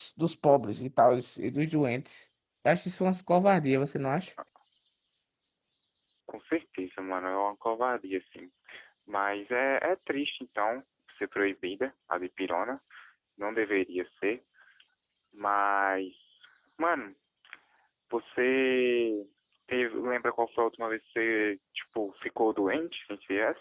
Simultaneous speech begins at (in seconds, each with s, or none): none